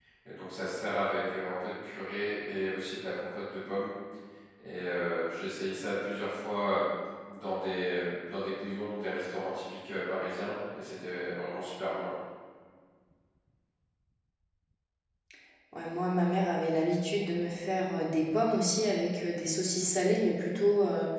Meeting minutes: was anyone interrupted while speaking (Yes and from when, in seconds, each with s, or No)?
No